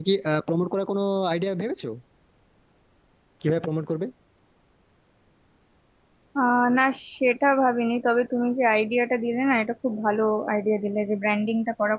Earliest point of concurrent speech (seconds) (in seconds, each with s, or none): none